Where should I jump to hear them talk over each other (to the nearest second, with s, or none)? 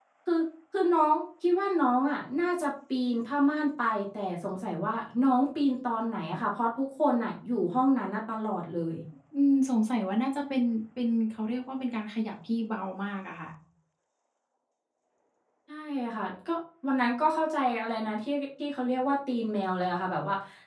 none